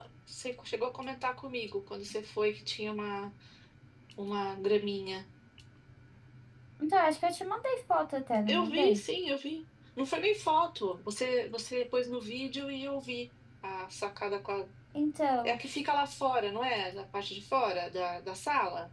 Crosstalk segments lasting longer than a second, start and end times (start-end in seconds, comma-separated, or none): none